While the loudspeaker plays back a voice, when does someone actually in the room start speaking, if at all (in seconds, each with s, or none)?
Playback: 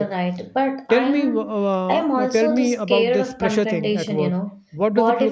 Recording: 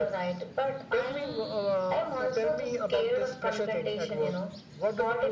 none